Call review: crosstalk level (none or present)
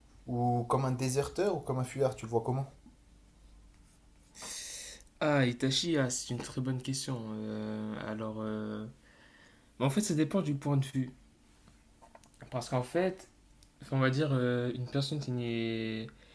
none